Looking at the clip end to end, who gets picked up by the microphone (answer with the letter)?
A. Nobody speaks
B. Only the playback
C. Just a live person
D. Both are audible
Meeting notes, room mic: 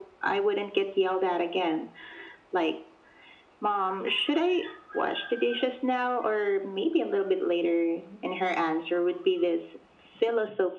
B